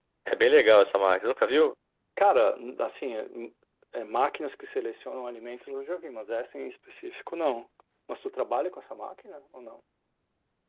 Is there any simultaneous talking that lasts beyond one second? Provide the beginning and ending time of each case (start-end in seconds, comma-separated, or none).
none